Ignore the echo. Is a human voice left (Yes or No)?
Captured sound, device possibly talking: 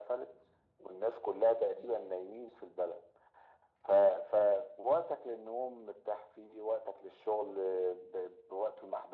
No